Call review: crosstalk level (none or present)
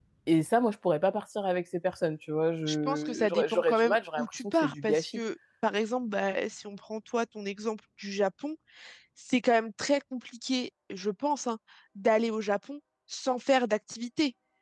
present